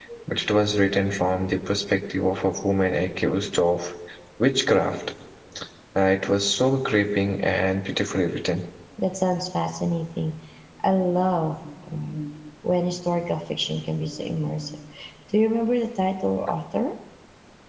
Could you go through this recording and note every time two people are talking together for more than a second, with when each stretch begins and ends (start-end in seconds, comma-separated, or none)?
none